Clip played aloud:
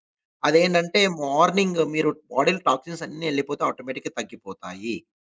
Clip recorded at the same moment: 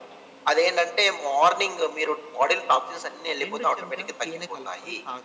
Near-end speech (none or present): present